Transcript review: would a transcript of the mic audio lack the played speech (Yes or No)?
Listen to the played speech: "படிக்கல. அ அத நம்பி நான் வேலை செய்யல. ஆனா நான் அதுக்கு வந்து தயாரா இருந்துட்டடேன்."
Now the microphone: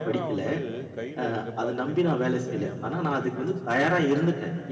No